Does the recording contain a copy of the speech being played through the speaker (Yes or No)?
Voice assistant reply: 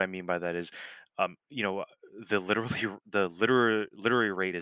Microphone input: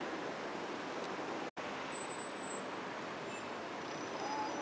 No